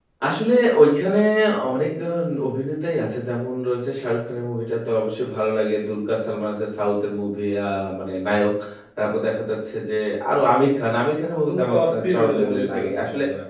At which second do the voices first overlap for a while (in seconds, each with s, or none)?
11.2 s